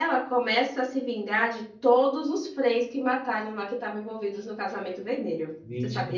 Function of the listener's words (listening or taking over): taking over